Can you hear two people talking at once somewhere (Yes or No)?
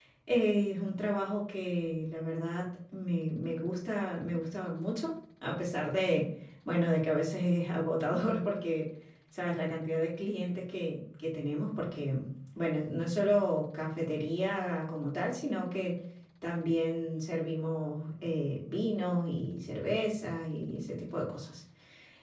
No